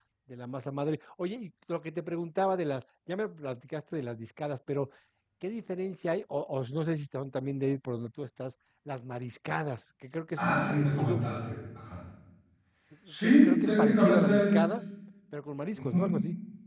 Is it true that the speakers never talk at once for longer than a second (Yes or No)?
No